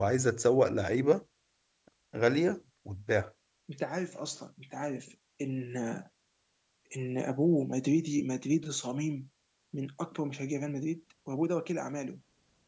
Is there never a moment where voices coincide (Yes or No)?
Yes